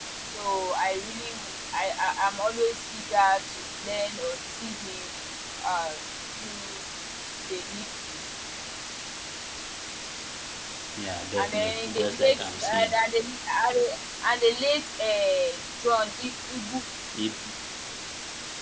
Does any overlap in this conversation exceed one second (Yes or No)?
Yes